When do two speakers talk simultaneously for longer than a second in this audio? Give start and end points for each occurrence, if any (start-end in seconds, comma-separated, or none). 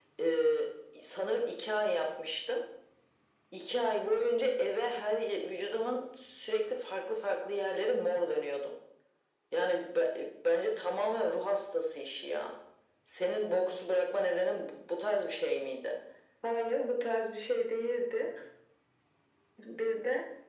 none